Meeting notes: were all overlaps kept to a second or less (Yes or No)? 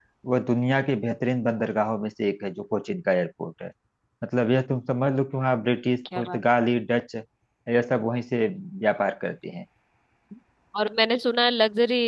Yes